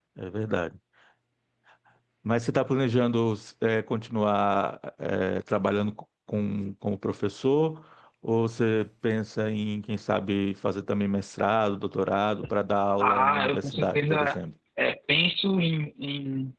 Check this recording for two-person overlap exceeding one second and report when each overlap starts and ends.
13.0-14.4

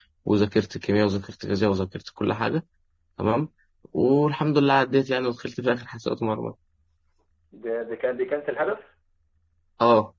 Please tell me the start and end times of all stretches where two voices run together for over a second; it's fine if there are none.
none

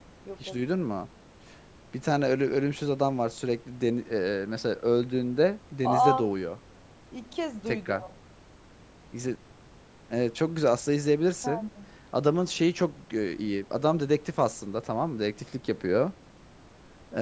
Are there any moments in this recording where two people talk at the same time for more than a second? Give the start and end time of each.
none

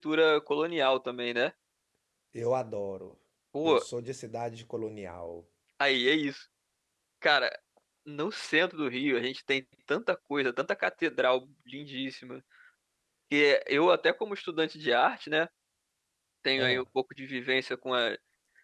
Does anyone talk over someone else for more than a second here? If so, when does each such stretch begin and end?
none

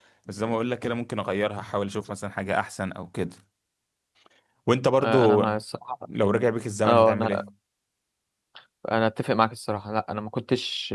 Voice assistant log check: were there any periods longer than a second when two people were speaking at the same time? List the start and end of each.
none

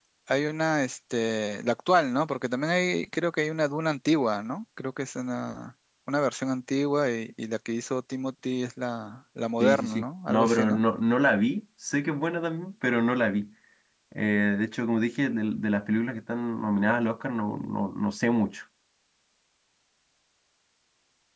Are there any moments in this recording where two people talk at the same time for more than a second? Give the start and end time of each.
9.6-10.8

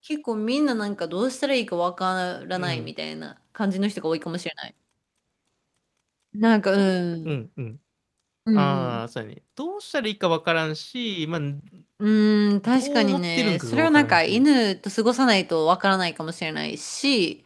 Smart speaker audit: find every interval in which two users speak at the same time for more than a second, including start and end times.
12.8-14.4

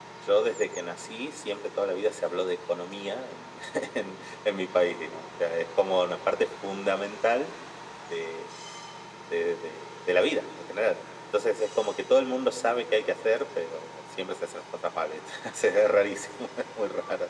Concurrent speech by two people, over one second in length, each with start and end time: none

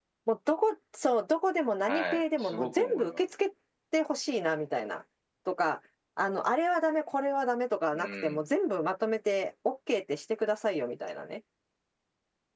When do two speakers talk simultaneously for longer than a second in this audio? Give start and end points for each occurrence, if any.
1.9-3.2

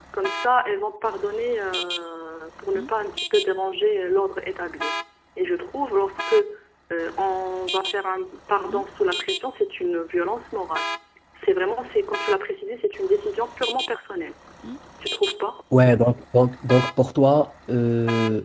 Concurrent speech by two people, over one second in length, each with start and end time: none

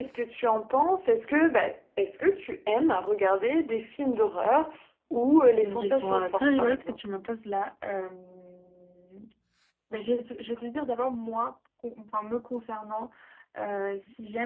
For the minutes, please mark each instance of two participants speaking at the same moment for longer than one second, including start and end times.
5.6-7.0

